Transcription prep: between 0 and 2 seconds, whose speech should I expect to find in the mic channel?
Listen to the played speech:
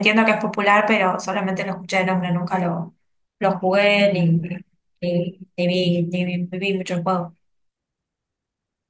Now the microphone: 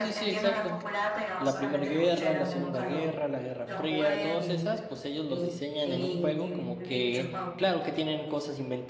both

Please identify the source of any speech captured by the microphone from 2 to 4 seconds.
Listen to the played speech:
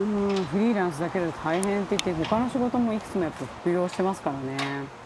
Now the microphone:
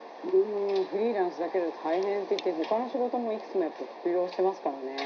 echo only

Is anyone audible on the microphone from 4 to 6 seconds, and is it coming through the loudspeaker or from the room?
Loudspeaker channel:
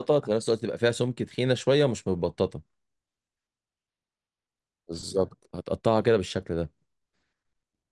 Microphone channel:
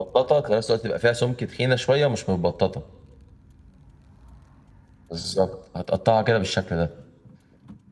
echo only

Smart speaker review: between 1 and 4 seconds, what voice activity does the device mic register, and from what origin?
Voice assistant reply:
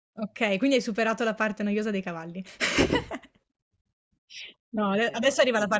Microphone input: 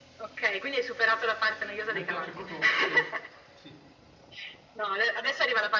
both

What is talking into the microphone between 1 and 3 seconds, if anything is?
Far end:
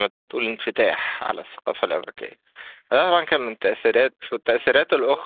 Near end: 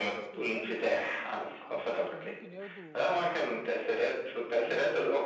both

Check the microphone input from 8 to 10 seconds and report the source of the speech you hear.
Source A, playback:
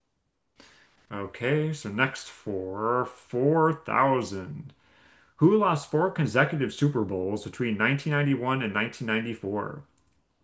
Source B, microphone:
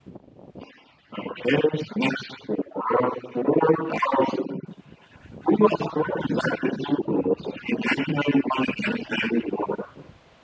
echo only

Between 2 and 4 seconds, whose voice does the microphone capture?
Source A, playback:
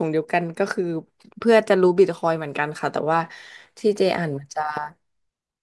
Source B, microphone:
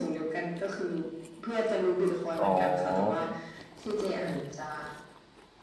both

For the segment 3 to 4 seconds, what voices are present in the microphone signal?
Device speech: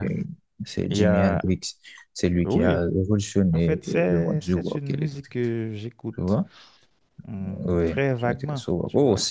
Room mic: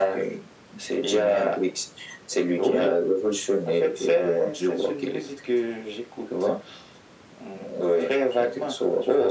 echo only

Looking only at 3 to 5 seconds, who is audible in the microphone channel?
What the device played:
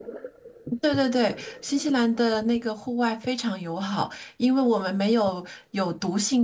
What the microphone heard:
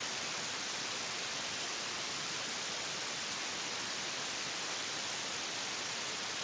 neither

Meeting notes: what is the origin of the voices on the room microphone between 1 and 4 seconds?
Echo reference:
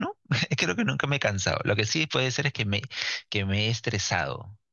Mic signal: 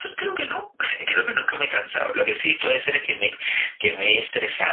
echo only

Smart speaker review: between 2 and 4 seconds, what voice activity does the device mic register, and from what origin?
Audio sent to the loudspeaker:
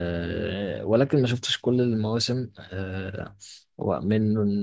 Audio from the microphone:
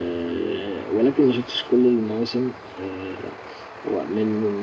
echo only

